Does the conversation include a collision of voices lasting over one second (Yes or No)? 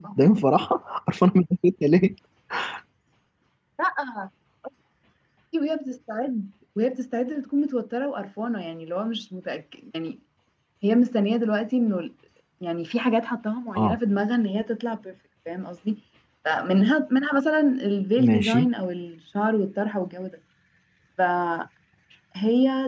No